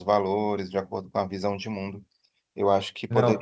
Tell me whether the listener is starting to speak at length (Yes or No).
No